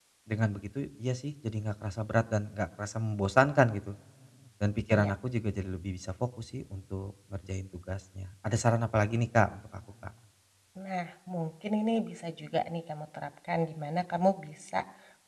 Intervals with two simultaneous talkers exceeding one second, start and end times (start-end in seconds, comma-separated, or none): none